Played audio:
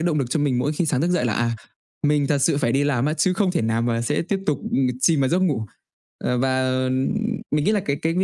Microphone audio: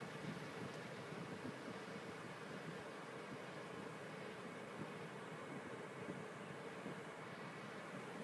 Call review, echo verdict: none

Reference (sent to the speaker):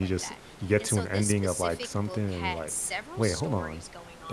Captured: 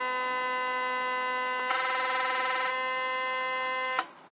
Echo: none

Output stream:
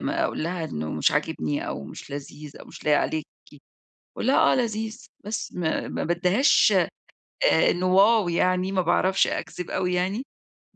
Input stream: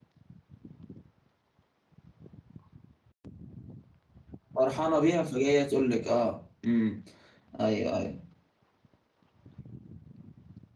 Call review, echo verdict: none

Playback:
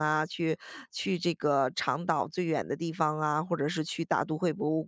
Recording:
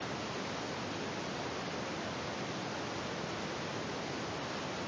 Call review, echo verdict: none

